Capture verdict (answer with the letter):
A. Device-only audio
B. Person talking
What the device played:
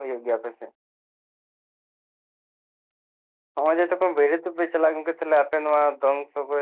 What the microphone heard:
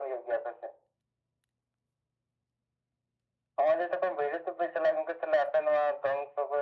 A